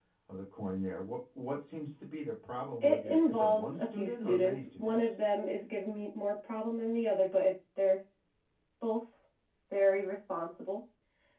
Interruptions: present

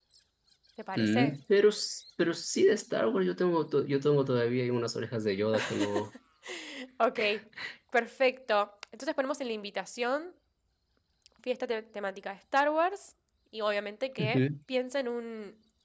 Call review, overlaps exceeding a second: none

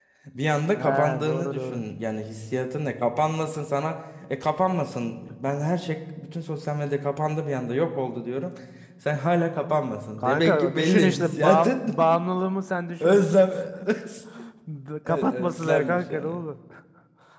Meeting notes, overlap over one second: present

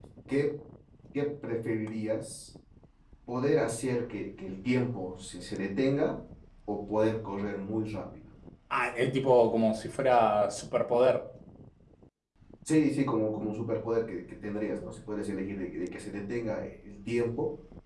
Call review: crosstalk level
none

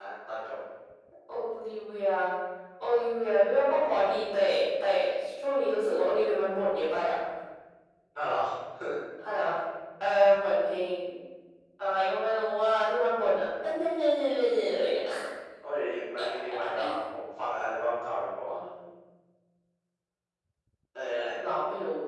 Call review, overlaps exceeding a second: none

